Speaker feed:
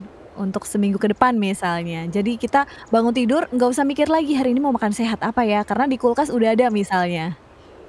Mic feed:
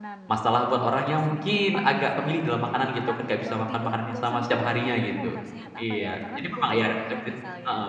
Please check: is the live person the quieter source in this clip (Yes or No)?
No